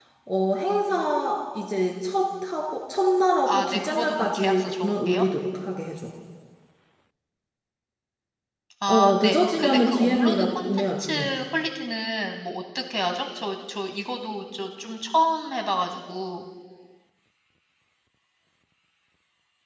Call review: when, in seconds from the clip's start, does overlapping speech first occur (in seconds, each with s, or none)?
3.5 s